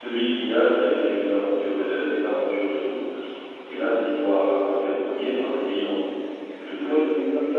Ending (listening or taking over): taking over